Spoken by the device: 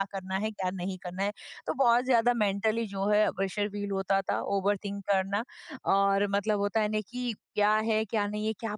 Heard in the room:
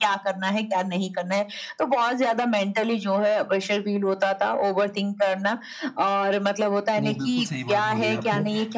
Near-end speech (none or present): present